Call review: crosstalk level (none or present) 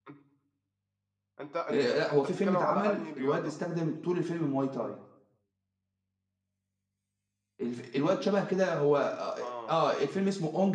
present